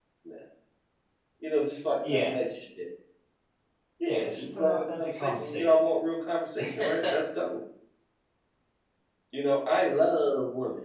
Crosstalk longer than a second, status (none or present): present